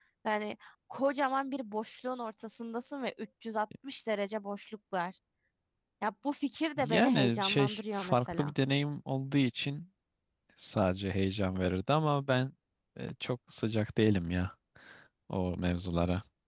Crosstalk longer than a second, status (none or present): present